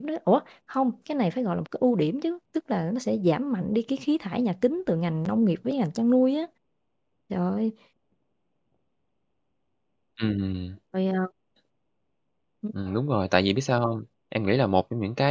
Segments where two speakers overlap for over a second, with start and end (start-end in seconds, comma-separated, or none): none